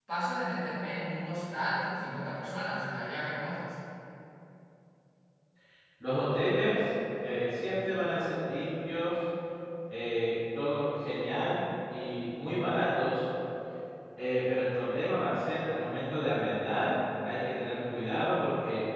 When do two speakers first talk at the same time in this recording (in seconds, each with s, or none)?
none